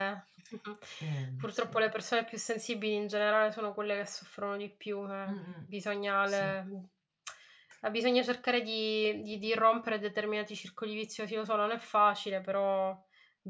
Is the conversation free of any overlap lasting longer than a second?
Yes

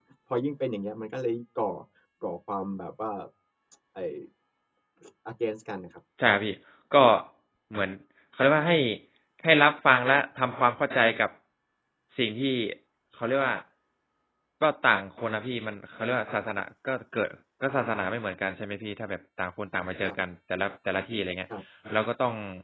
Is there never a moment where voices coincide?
Yes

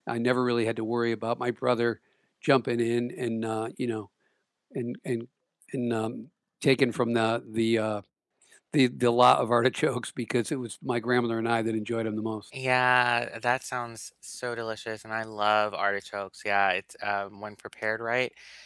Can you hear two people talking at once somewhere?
No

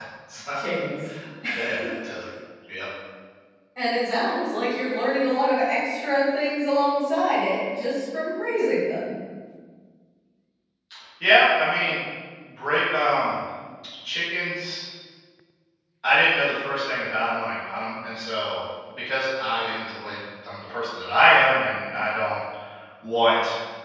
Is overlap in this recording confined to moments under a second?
Yes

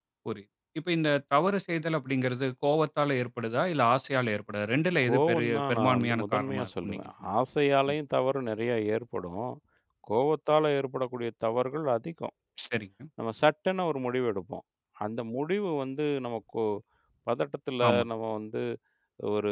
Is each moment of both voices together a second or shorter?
No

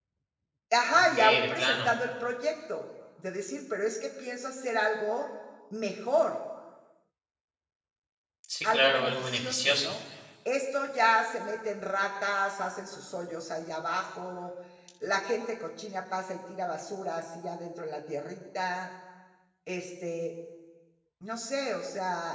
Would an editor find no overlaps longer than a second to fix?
No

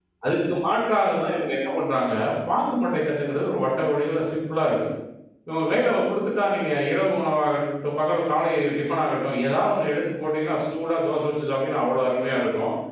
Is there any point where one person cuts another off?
No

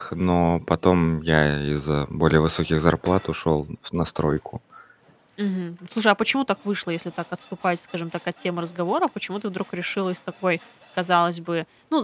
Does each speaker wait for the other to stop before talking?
Yes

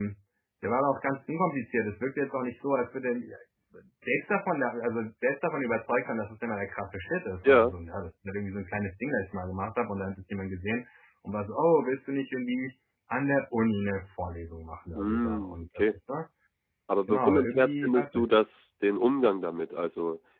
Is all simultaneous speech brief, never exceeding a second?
No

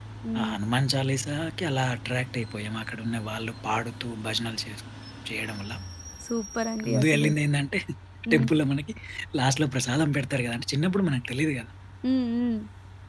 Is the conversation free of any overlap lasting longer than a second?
Yes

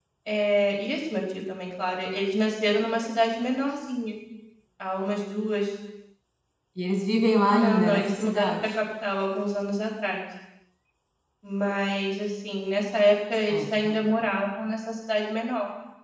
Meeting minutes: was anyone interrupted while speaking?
Yes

